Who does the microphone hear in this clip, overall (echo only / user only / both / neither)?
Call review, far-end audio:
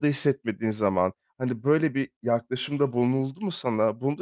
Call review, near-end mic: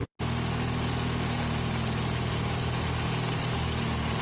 neither